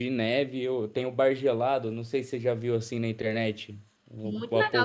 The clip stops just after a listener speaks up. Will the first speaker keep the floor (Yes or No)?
No